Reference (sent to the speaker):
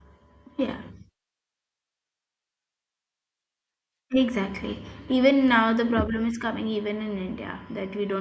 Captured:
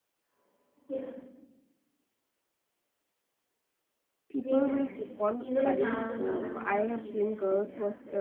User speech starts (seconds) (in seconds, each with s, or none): 4.3 s